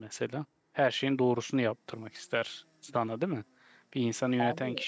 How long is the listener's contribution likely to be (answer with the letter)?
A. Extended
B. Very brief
B